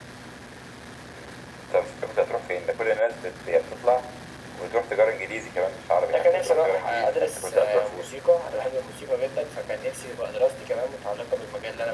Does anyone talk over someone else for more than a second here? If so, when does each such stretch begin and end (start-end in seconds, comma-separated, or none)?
6.1-8.1